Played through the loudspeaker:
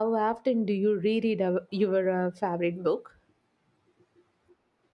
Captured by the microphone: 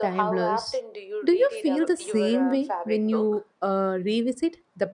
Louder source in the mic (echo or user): user